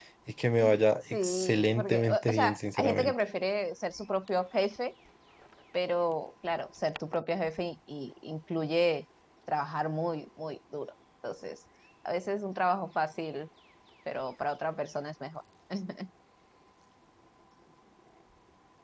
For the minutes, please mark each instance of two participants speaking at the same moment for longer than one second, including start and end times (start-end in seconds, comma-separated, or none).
1.2-3.1